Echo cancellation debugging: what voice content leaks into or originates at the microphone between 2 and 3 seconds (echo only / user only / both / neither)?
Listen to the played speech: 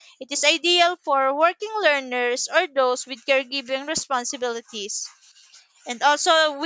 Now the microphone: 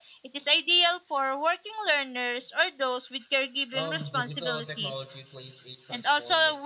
echo only